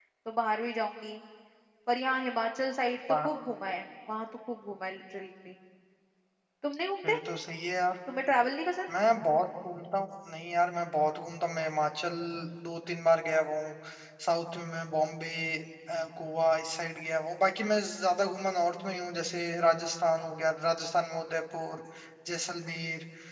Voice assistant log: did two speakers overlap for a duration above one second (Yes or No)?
No